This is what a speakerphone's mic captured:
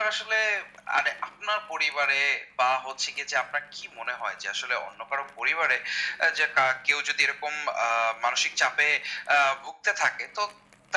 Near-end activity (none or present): none